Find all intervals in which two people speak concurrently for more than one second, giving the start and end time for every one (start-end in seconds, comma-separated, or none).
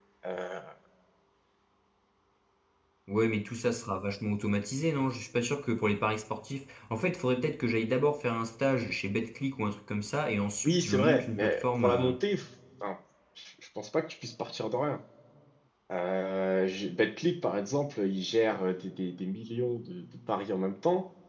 10.6-12.1